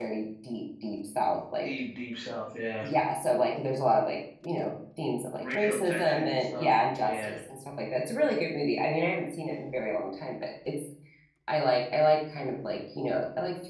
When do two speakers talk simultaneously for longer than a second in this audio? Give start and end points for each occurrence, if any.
5.4-7.4

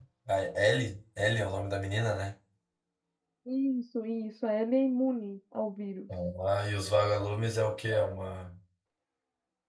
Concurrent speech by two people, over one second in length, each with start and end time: none

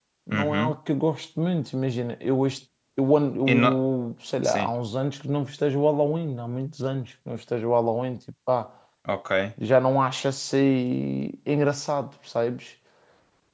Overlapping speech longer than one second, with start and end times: none

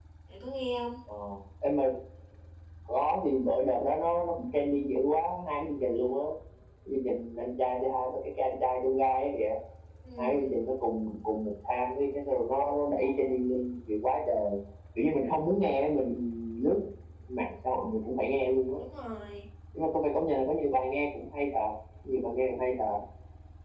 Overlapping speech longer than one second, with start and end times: none

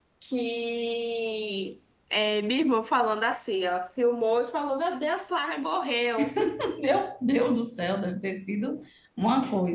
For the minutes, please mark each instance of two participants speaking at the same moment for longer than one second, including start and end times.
none

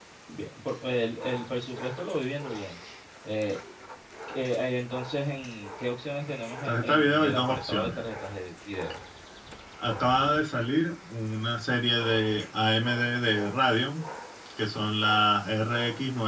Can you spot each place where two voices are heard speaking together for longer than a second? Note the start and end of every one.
6.6-8.0

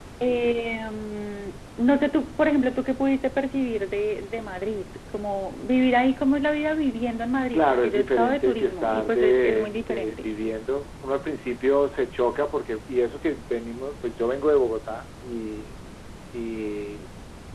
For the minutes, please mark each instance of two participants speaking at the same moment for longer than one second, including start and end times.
7.5-10.3

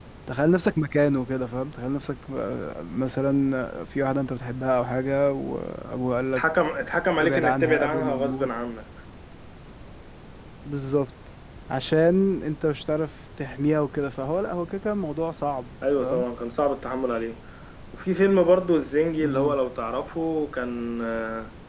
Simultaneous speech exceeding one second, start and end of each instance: 7.2-8.5

